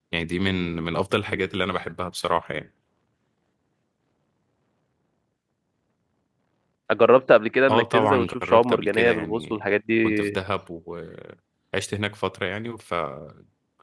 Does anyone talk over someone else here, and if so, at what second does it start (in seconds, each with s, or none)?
7.7 s